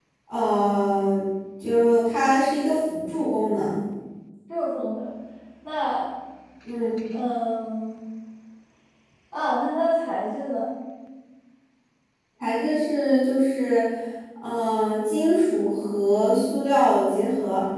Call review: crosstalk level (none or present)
none